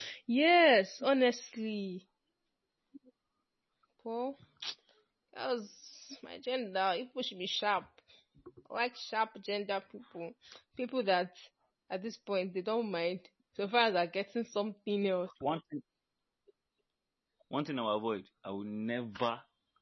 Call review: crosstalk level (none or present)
none